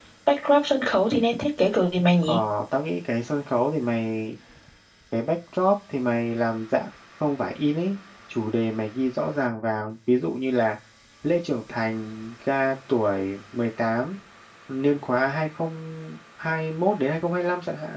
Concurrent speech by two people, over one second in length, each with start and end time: none

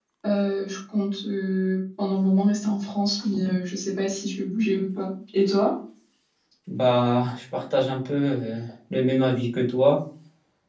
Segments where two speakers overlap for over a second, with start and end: none

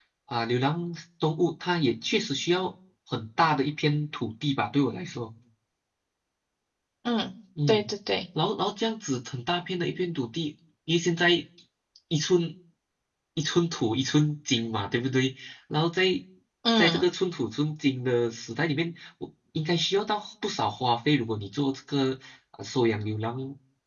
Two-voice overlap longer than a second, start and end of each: none

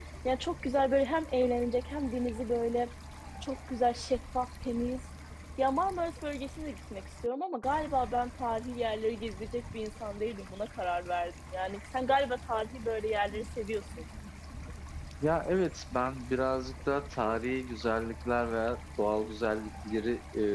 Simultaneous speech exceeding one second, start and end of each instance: none

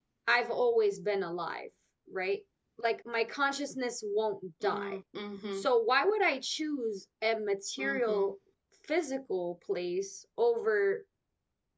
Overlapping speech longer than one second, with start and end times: none

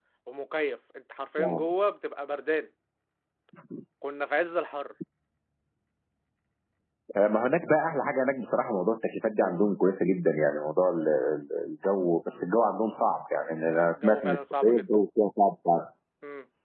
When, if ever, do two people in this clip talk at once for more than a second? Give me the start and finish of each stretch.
13.7-14.9

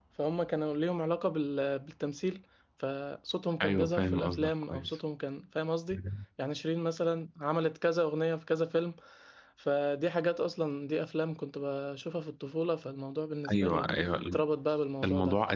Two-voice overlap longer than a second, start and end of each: 3.6-4.9

